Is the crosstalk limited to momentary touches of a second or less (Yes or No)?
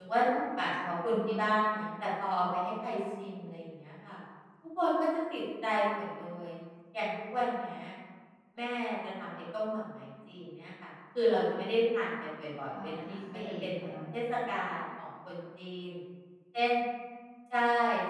No